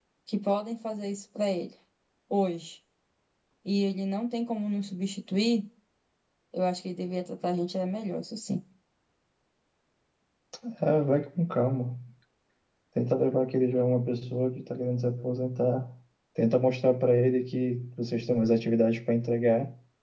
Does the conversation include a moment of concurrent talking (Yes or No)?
No